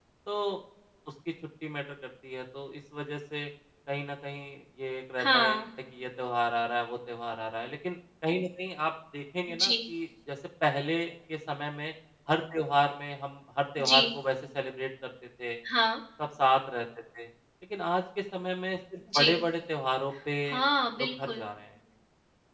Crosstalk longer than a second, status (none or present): none